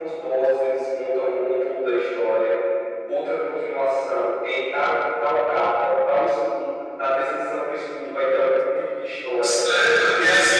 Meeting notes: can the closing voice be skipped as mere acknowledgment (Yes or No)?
No